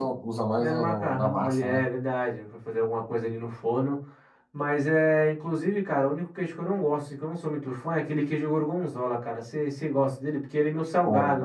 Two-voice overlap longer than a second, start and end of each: 0.6-1.8

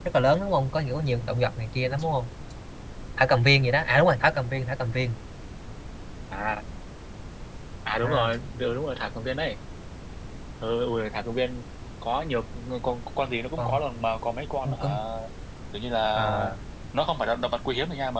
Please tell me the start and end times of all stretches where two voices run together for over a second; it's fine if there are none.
none

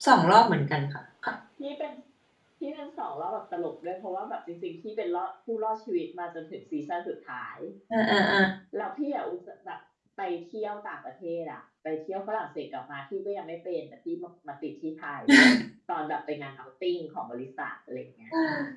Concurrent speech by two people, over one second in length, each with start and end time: none

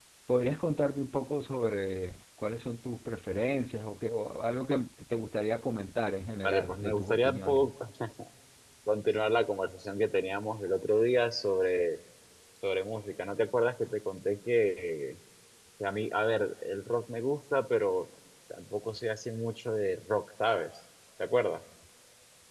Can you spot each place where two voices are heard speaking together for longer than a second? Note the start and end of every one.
6.4-7.7

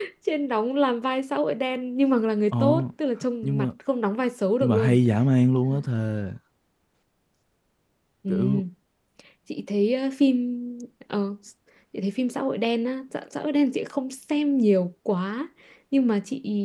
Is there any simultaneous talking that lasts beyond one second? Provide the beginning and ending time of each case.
none

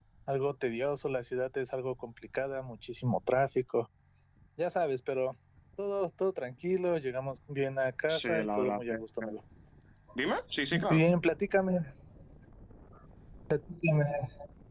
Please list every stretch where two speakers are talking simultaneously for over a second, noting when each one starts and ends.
8.1-9.4

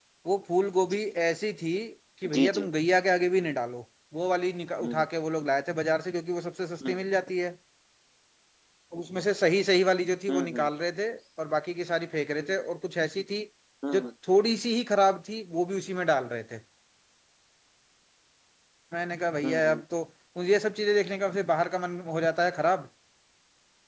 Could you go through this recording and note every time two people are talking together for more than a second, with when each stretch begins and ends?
none

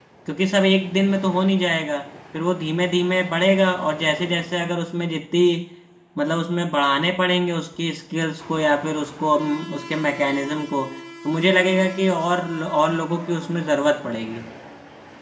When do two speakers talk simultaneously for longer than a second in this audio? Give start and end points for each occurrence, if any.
none

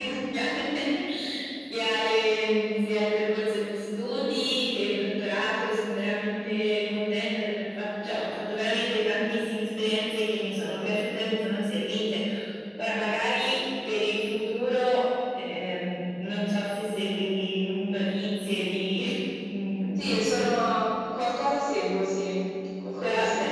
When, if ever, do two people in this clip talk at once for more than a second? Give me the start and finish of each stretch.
none

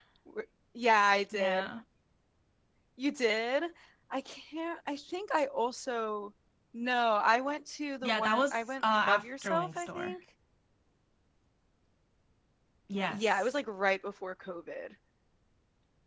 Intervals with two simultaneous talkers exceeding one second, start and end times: 8.0-10.2

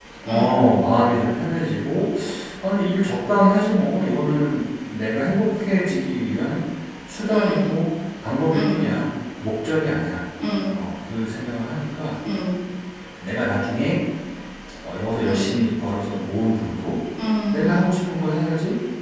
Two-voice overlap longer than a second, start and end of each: none

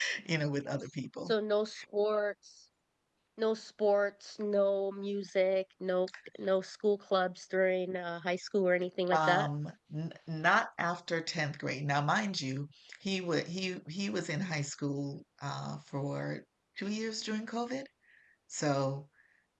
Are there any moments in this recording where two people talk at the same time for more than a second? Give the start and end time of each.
none

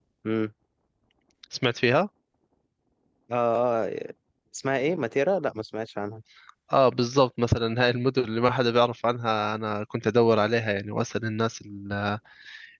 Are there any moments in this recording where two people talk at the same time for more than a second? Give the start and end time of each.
none

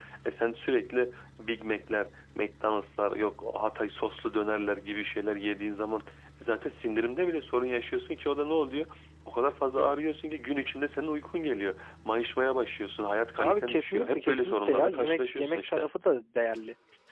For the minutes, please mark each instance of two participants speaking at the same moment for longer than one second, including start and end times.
13.4-15.9

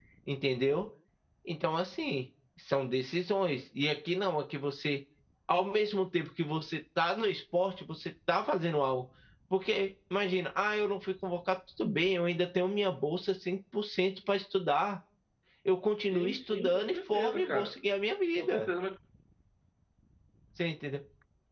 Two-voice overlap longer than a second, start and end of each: 16.0-17.8

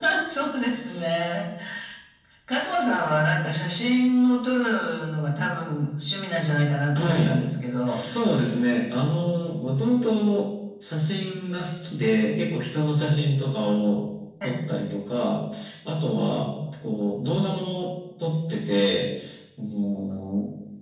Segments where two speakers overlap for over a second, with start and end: none

